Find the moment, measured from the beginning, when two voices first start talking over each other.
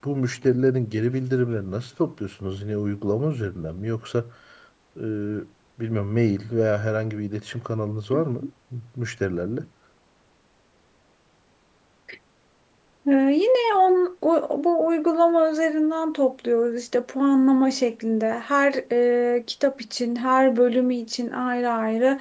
none

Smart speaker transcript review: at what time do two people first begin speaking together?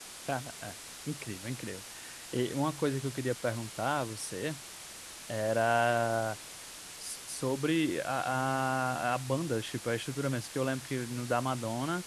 none

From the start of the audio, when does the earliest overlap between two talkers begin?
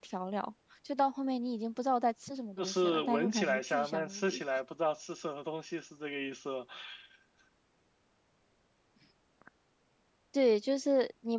2.6 s

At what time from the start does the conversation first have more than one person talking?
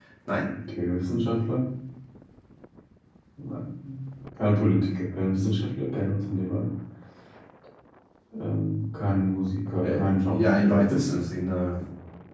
9.8 s

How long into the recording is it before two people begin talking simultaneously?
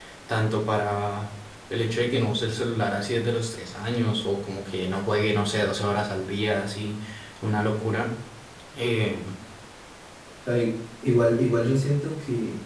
none

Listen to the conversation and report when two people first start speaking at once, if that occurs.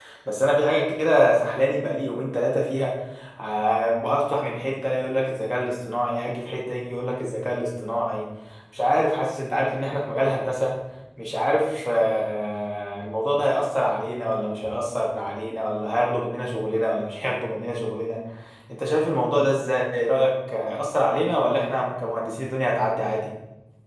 none

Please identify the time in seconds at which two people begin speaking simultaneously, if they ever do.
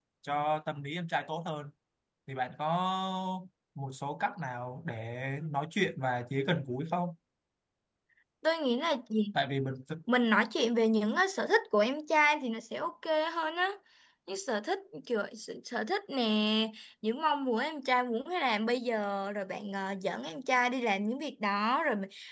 none

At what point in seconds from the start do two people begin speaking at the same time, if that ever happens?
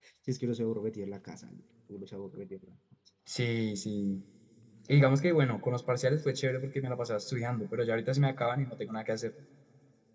none

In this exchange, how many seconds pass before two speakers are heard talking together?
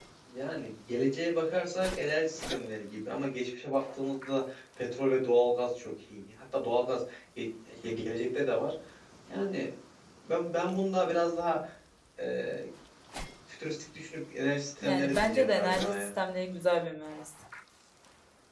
14.8 s

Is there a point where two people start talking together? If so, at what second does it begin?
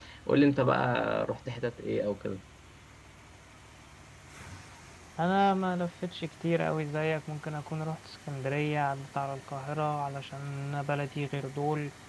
none

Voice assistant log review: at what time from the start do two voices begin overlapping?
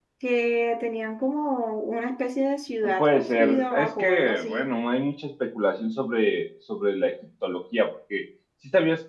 2.8 s

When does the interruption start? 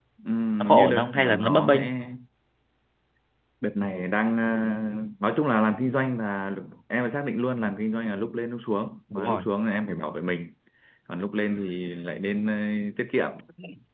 0.6 s

